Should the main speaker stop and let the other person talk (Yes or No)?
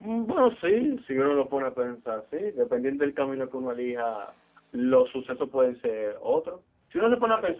No